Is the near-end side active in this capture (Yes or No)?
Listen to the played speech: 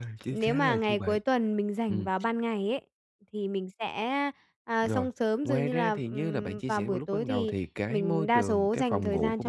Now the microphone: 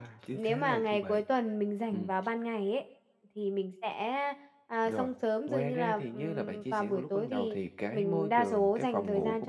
No